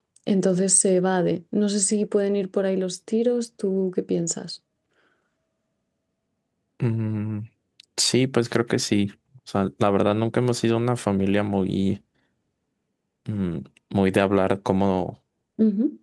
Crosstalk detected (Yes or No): No